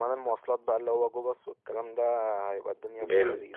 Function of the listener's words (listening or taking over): taking over